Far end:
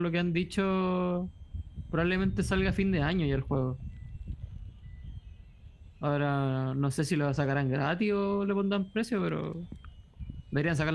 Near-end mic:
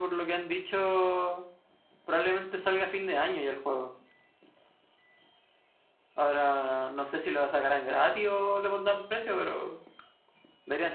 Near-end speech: none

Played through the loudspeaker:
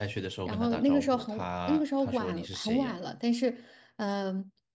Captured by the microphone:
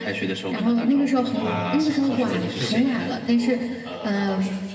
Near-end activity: present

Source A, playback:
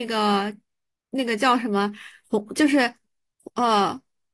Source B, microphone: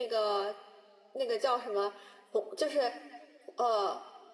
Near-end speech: none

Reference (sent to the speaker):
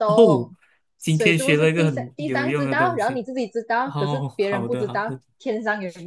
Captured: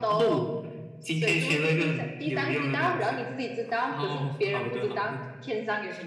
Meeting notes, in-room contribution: none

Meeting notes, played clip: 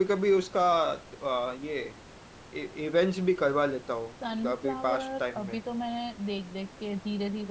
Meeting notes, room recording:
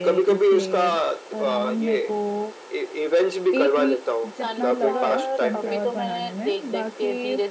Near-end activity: present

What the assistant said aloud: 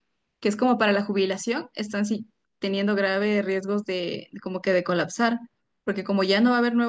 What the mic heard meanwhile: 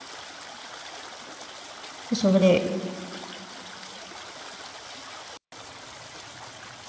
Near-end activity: present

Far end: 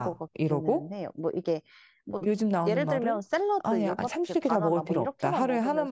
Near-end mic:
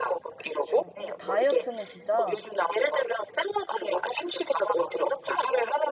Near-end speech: present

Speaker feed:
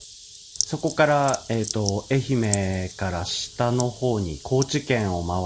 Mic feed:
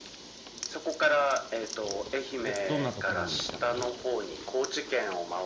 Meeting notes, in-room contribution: present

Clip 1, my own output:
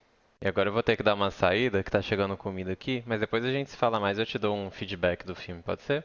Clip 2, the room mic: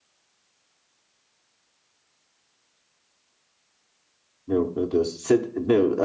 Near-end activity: present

